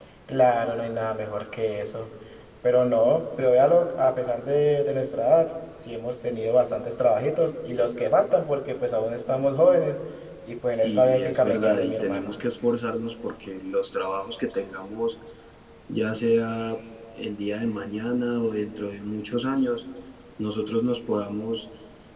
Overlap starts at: 10.8 s

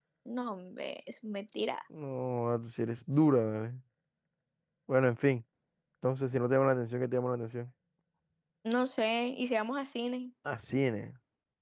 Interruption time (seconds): none

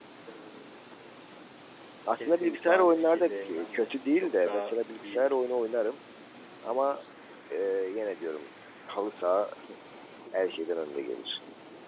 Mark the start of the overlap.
2.2 s

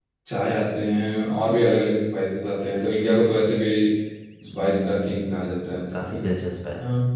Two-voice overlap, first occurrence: 4.5 s

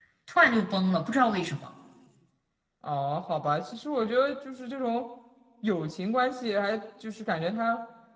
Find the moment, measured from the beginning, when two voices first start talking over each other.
none

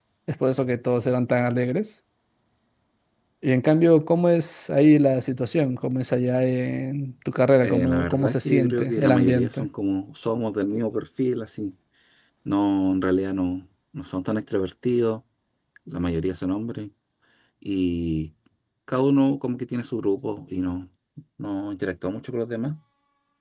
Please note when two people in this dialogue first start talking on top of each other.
7.6 s

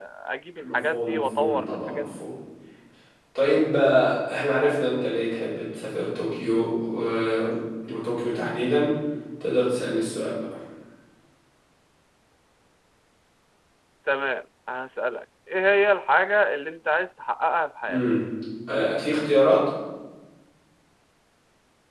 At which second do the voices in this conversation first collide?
0.6 s

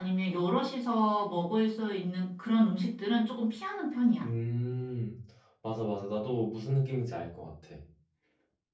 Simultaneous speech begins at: none

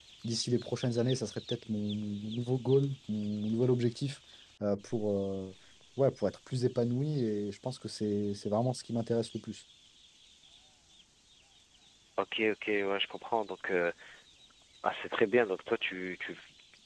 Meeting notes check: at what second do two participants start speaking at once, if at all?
none

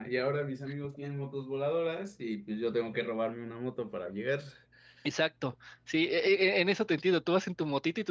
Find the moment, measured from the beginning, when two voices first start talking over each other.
none

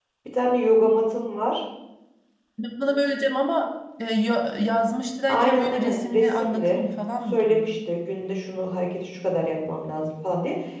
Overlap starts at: 5.3 s

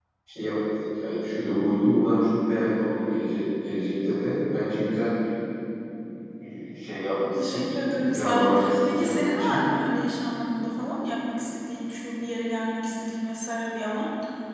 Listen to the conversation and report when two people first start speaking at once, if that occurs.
7.3 s

